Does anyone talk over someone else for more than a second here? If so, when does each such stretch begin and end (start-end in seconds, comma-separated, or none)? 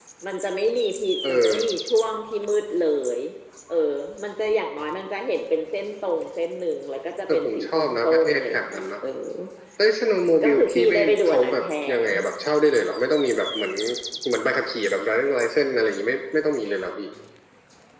7.3-8.9, 10.4-12.0